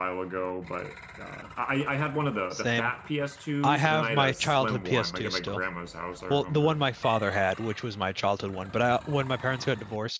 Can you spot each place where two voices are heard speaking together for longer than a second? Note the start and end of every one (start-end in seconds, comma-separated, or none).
3.6-5.6